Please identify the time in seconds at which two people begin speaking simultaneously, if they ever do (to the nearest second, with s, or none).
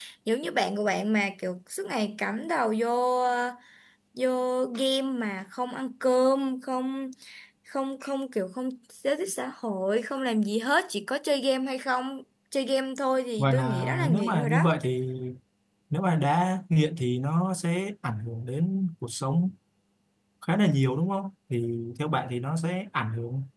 13 s